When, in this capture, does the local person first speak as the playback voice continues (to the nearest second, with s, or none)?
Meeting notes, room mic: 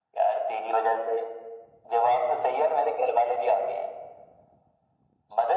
none